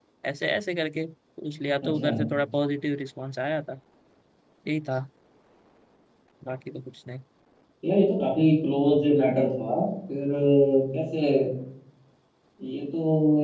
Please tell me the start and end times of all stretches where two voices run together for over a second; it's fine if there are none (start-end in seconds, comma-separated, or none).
none